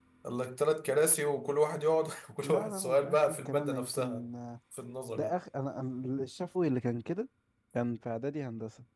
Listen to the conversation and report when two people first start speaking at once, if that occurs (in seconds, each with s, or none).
2.4 s